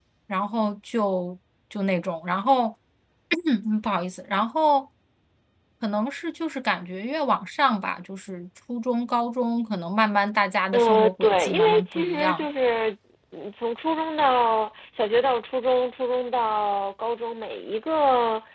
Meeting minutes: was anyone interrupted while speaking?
Yes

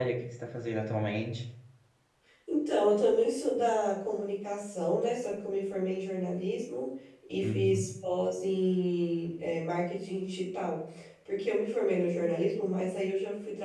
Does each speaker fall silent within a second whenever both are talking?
Yes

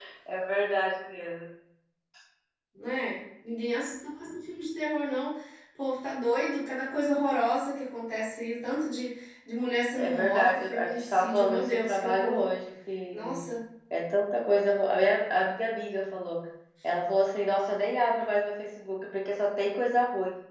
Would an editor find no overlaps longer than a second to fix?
No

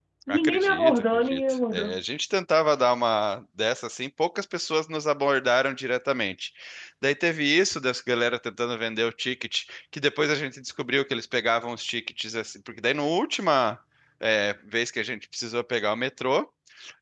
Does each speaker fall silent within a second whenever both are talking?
No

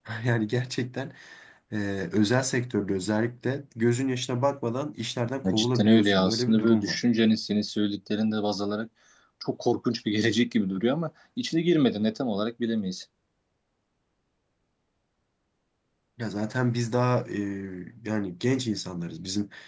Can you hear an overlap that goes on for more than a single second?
Yes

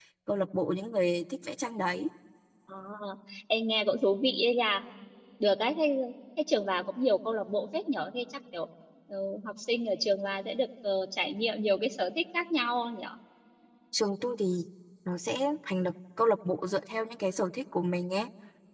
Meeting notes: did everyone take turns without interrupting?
Yes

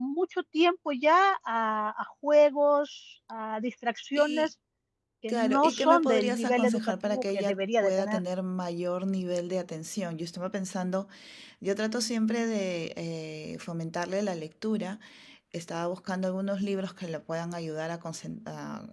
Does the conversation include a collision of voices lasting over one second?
Yes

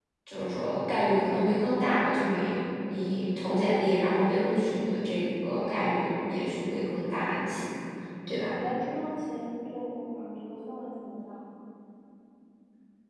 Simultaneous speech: No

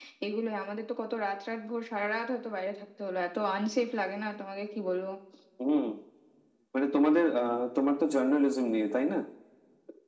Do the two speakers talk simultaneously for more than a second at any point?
No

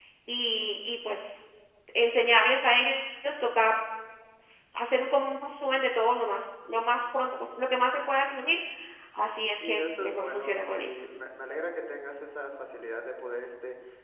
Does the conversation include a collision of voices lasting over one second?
Yes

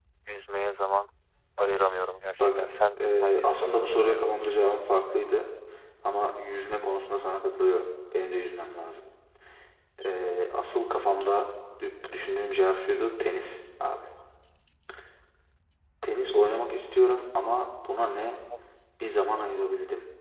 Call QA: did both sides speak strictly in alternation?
No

